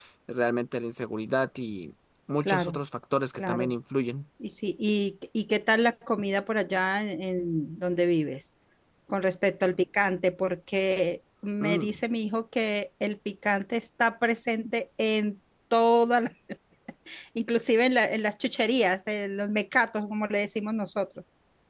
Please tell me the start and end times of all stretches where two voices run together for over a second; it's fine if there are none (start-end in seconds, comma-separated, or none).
none